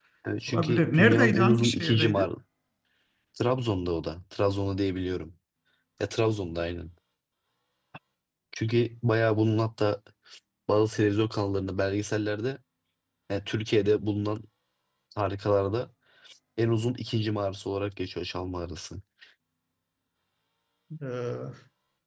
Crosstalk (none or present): present